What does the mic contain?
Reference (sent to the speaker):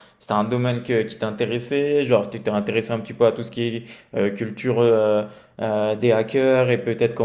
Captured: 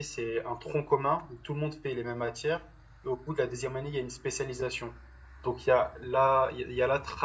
user only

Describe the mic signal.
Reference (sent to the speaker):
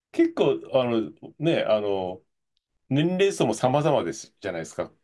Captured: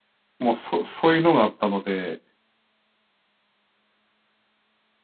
user only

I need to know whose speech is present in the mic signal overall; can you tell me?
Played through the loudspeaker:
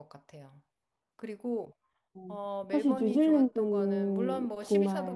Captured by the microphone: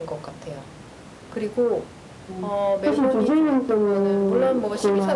echo only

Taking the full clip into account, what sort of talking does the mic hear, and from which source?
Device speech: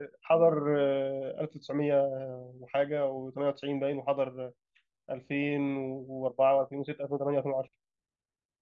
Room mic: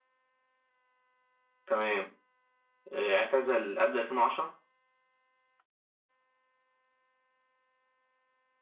user only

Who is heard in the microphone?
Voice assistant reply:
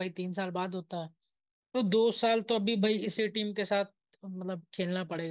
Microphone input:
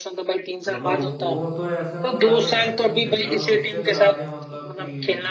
both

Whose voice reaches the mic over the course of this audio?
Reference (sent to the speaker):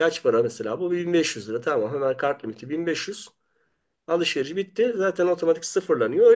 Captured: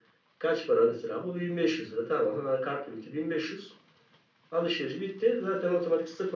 echo only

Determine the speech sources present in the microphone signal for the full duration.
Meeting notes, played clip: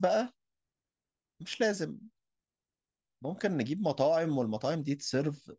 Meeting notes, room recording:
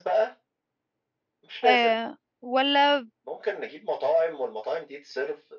both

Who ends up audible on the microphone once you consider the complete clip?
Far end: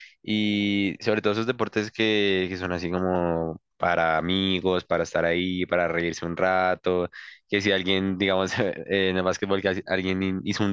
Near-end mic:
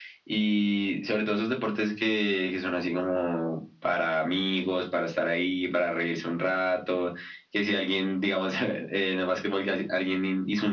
echo only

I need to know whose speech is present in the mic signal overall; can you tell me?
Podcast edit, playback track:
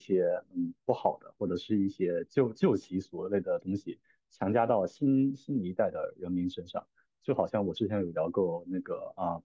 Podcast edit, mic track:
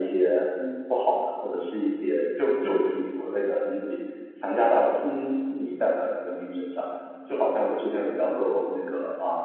echo only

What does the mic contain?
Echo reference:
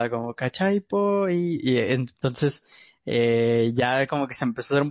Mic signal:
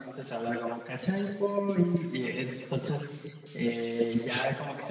echo only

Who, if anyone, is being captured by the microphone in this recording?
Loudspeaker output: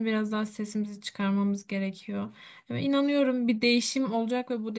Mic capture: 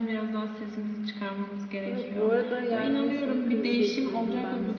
both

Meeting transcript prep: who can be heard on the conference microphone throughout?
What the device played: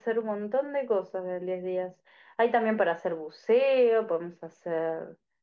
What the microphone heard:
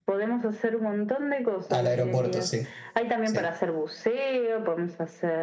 both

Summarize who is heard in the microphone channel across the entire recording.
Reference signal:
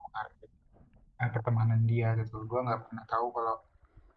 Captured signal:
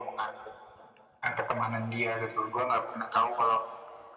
echo only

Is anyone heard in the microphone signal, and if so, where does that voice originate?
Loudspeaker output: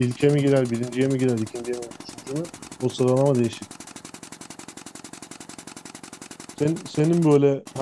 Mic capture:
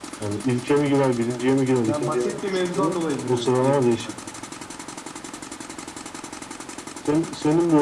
both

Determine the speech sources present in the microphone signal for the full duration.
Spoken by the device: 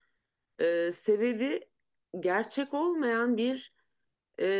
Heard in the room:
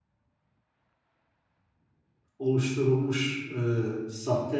user only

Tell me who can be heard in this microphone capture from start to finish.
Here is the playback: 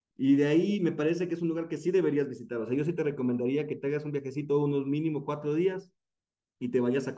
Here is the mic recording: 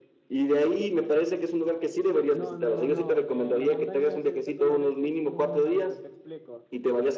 both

